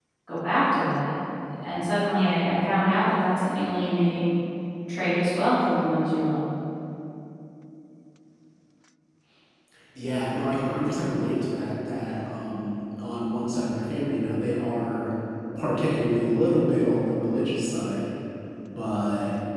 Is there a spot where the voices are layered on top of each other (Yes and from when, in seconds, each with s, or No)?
No